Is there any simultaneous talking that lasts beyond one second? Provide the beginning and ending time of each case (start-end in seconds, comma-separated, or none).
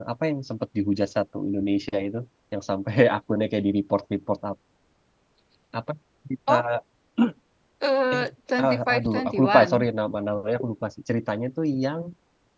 8.6-9.8